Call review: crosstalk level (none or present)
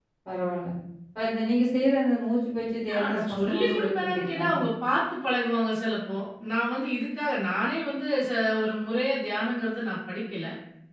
present